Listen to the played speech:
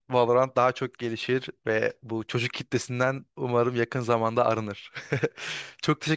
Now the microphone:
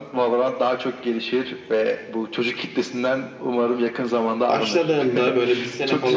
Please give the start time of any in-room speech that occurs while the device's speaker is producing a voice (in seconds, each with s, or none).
4.5 s